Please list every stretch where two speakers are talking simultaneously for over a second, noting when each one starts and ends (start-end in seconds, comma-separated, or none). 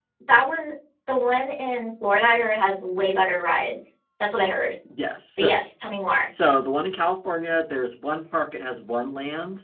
none